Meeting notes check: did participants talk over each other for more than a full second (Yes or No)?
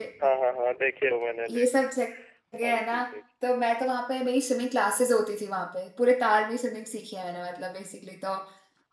No